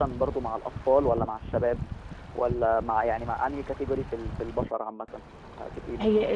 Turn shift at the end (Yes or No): Yes